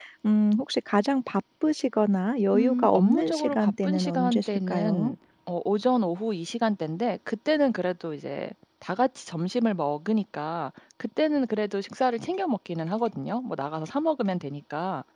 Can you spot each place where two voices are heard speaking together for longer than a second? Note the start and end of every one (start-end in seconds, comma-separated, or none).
2.5-5.1